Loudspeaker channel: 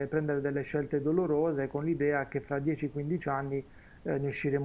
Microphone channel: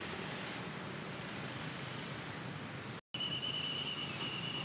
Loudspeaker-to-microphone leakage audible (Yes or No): No